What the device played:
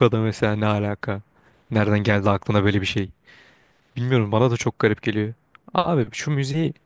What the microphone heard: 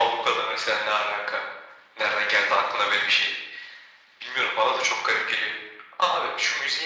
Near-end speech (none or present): none